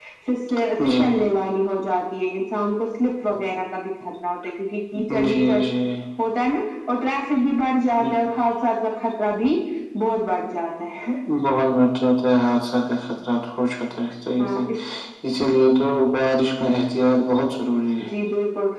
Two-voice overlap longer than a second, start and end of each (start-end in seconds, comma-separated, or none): none